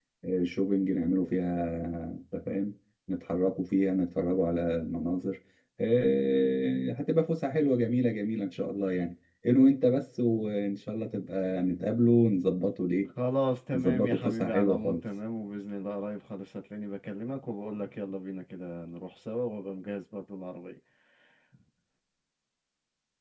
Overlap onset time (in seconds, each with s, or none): 13.7 s